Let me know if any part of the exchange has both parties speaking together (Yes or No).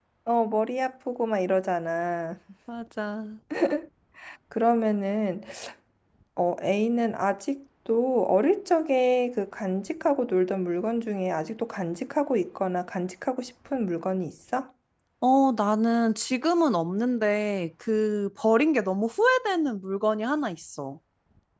No